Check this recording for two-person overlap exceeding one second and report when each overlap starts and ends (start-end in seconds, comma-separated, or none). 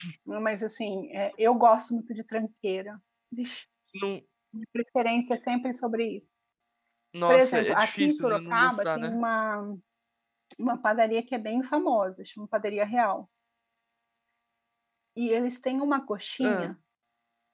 7.3-9.2